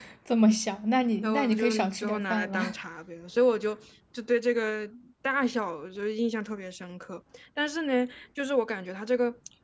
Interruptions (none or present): present